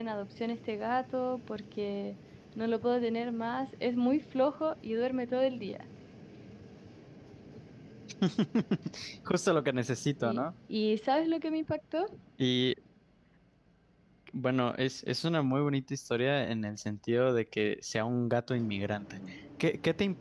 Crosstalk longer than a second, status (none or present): none